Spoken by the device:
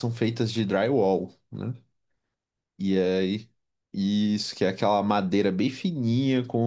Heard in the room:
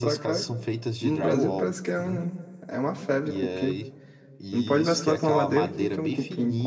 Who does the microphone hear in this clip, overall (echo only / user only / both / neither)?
both